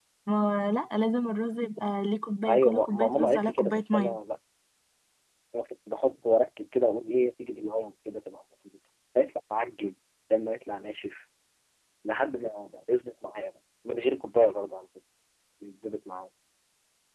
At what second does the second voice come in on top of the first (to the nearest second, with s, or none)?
2 s